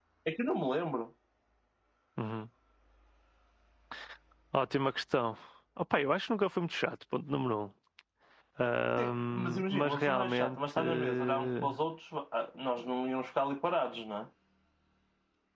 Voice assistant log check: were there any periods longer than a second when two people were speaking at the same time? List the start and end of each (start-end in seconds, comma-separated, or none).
9.0-11.7